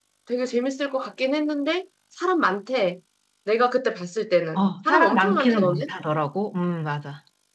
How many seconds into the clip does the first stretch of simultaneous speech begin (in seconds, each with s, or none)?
4.5 s